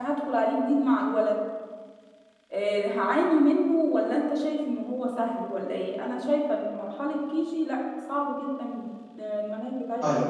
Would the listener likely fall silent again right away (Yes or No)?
No